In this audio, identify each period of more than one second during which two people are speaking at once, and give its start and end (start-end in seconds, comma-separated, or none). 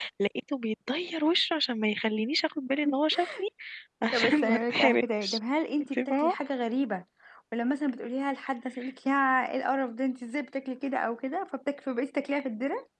4.1-5.4